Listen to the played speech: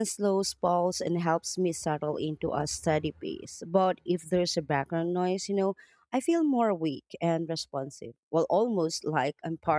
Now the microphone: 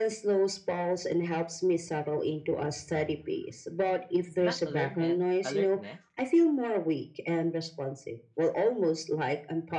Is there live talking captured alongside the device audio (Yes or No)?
Yes